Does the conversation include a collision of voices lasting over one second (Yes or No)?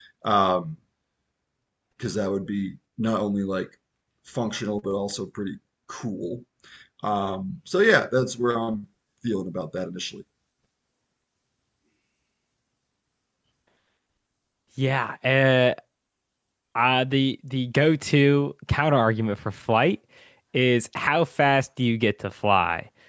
No